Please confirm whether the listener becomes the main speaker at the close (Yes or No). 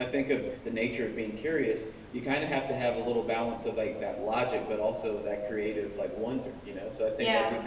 No